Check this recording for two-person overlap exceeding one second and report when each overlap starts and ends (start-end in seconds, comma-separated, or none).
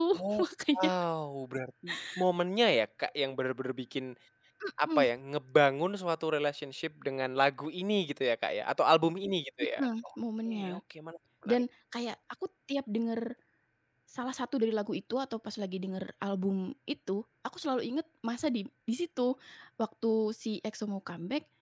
none